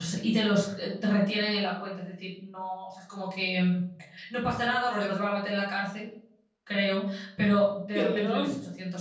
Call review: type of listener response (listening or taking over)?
listening